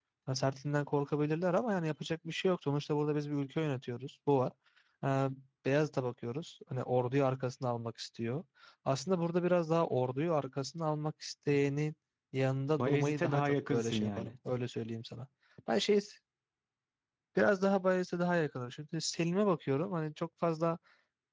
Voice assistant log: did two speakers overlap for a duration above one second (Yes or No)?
Yes